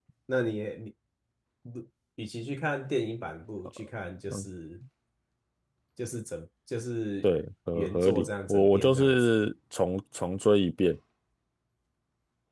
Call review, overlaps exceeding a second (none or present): present